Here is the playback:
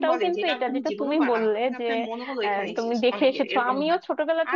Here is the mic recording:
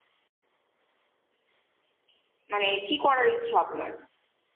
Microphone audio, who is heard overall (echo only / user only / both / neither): user only